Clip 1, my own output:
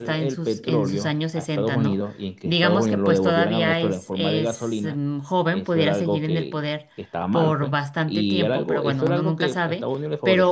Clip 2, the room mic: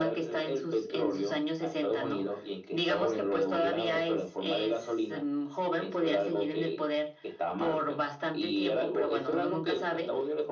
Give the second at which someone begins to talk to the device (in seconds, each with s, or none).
none